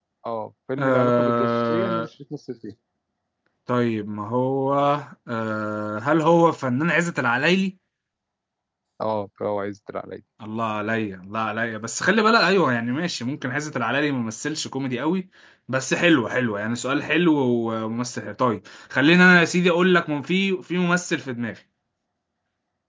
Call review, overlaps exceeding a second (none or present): present